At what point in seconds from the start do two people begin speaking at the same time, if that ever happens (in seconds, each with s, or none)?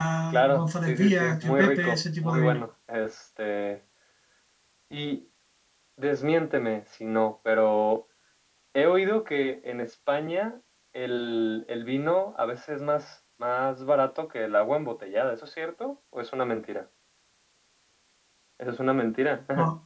0.6 s